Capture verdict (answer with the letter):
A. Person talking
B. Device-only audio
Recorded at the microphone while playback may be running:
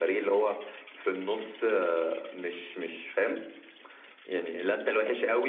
B